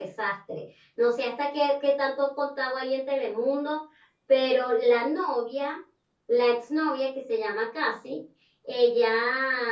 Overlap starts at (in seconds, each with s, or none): none